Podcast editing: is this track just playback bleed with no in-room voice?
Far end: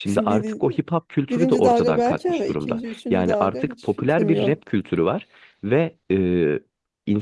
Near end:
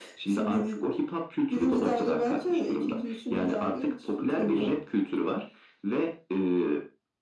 Yes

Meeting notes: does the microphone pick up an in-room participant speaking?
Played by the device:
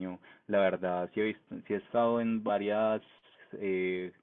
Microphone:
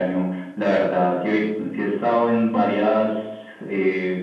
No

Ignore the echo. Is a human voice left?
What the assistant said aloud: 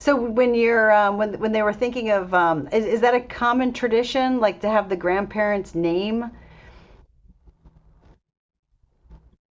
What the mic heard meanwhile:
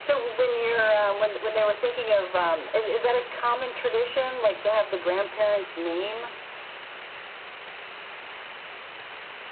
No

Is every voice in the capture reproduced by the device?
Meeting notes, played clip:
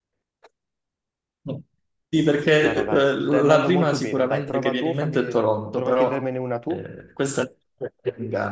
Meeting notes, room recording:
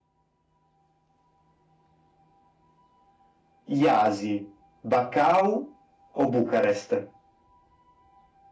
No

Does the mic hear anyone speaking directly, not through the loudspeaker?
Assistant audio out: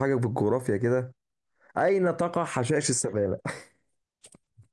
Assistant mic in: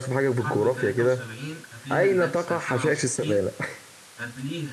Yes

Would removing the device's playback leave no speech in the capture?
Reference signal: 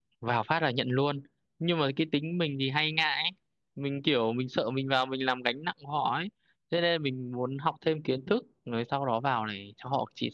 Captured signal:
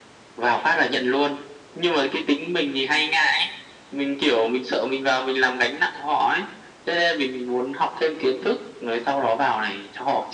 Yes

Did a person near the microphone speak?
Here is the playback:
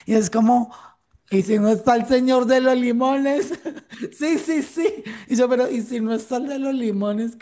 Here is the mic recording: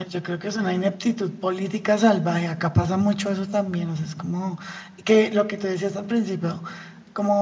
Yes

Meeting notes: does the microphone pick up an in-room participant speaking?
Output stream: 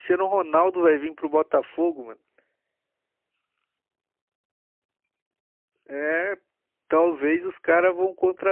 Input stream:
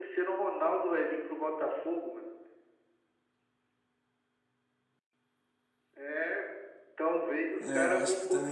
Yes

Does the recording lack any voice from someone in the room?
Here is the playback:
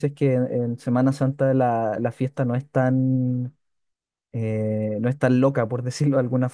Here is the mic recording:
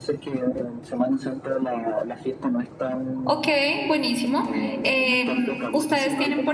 No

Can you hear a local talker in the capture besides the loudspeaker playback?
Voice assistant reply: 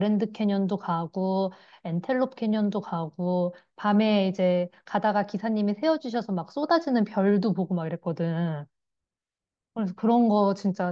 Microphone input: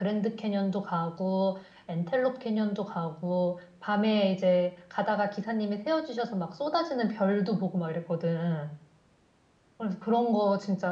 No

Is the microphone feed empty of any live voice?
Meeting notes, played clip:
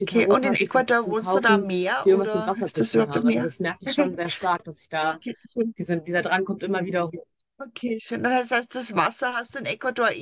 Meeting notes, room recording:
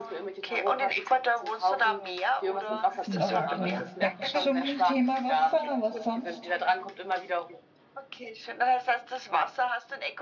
No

